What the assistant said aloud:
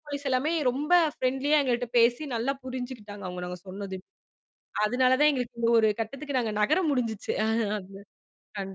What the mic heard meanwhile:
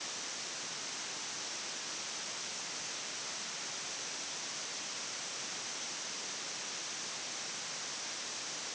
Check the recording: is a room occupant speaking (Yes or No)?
No